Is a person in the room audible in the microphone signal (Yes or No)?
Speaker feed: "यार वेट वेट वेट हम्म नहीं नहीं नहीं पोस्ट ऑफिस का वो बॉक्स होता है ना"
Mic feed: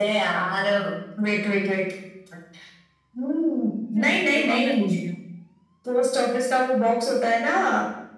Yes